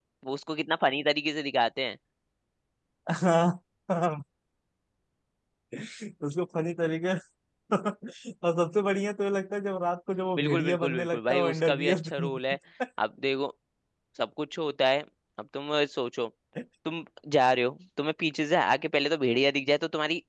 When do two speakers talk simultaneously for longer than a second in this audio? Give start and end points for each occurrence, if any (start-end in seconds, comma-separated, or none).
10.4-12.4